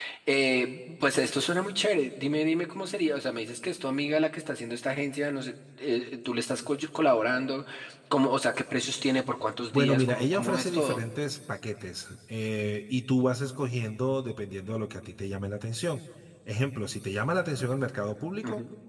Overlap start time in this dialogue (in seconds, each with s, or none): 9.7 s